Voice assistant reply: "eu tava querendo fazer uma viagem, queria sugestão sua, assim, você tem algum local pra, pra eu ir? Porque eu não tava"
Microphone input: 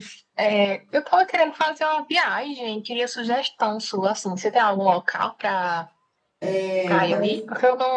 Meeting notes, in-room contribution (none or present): present